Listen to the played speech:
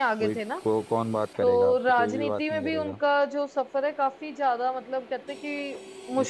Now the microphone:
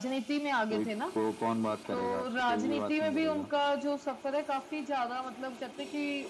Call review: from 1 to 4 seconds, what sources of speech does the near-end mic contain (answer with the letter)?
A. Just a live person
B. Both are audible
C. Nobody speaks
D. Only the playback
D